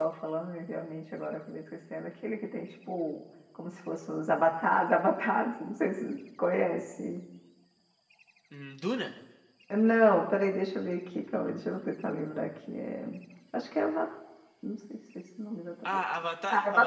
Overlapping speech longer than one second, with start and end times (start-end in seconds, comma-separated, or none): none